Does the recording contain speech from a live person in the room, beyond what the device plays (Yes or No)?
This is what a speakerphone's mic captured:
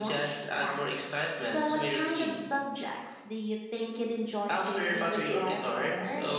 No